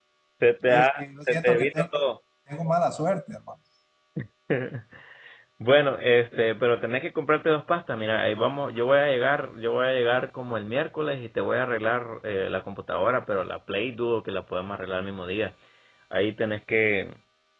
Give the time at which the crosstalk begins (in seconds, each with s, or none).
0.7 s